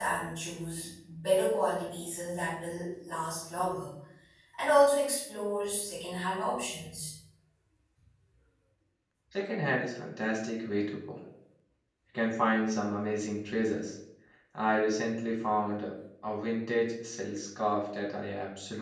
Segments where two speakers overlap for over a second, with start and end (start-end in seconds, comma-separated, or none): none